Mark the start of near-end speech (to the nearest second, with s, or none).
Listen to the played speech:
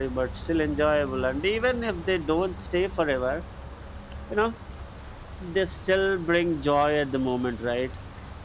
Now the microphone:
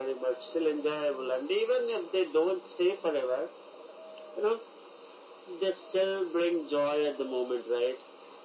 none